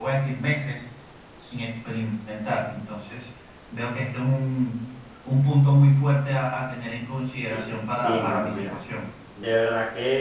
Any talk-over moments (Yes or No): Yes